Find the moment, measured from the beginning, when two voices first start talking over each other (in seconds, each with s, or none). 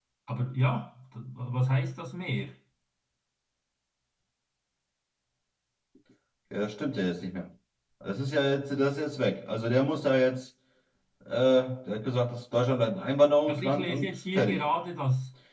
13.5 s